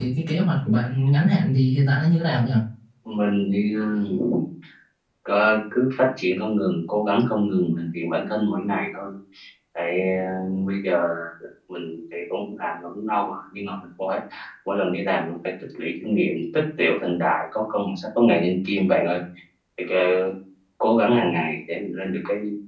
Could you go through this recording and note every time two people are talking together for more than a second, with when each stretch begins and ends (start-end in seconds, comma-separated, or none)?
none